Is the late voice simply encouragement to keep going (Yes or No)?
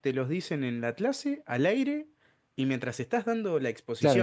No